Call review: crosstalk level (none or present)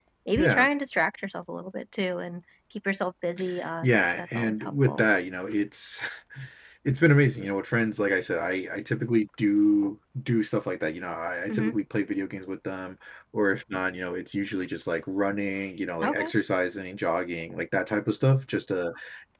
present